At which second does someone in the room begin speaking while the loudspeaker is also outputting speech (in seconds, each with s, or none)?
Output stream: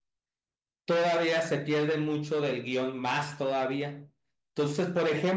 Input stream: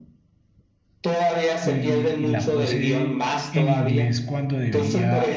1.6 s